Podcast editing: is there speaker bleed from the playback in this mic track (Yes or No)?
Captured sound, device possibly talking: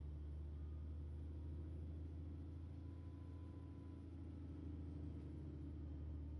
No